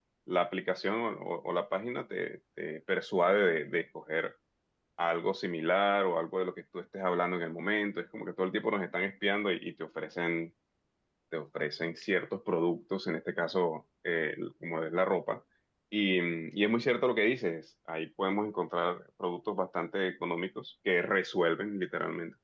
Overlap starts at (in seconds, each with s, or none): none